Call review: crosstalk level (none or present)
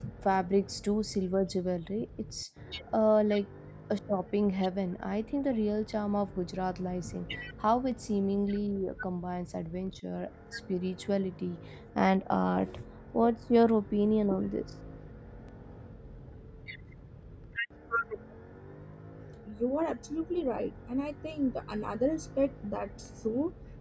none